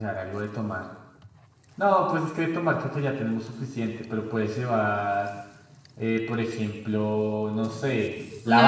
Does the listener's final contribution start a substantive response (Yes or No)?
No